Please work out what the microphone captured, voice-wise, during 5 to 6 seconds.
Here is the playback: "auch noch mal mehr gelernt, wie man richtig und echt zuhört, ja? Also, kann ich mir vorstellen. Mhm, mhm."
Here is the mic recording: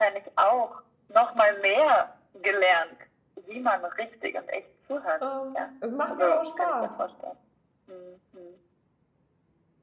both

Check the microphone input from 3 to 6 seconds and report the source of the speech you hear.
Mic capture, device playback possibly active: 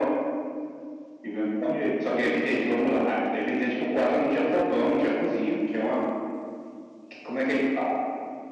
echo only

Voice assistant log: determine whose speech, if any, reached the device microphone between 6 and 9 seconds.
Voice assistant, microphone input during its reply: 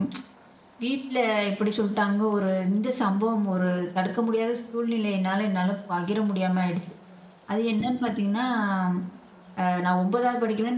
user only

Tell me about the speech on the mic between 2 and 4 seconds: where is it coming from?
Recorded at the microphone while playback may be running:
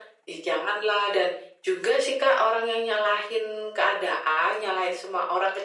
echo only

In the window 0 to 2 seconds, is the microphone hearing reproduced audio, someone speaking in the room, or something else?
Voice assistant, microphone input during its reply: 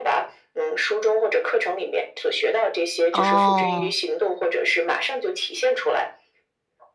echo only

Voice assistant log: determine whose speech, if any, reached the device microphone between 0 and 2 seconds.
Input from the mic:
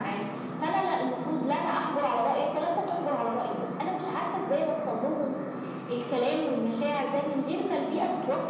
echo only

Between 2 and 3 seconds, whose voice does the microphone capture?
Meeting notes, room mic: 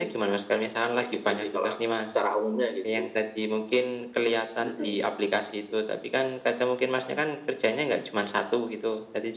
echo only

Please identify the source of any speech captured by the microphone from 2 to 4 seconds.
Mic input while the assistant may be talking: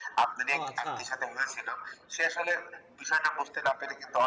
echo only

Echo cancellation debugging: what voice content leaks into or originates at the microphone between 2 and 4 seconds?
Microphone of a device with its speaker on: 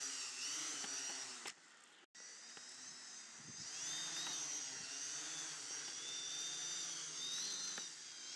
neither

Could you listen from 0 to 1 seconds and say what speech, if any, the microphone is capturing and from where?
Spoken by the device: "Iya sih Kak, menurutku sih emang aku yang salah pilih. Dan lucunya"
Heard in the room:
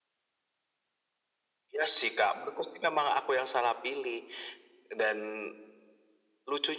neither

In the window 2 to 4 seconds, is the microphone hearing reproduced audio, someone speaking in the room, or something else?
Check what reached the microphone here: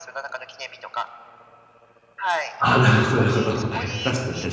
both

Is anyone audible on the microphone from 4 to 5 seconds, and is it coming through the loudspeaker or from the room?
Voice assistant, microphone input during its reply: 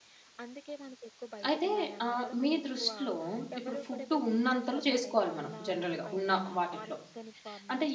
both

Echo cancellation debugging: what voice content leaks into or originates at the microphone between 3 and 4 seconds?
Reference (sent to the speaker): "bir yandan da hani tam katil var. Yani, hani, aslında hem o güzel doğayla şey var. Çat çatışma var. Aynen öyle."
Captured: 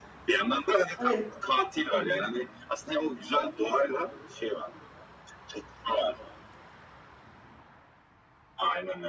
echo only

